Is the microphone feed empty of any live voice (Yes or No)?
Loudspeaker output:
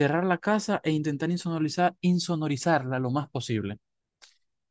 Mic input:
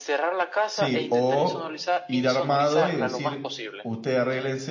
No